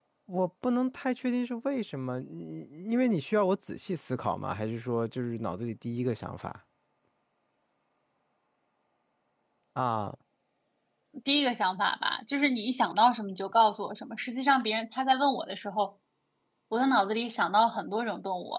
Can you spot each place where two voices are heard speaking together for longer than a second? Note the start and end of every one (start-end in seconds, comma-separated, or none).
none